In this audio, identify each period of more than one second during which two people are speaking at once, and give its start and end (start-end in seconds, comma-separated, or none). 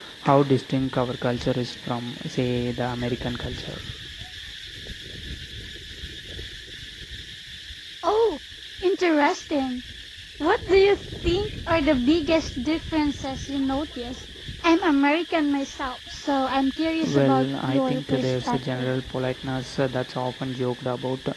17.0-18.9